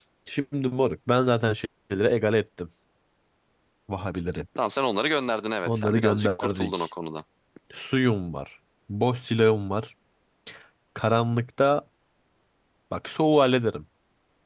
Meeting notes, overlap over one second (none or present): present